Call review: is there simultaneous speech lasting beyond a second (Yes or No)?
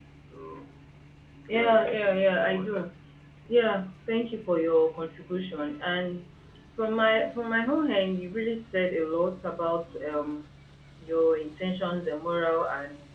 Yes